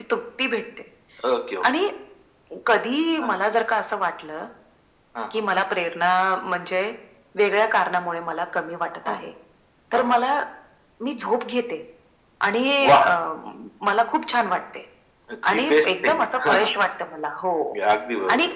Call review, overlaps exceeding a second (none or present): present